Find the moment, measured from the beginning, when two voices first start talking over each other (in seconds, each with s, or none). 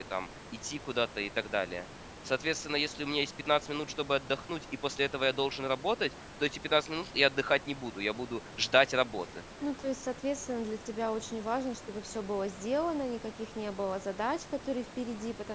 none